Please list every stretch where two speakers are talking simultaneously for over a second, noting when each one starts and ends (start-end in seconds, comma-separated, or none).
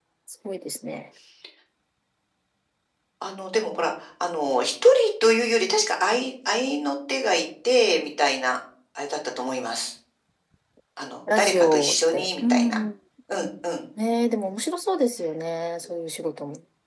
11.4-12.8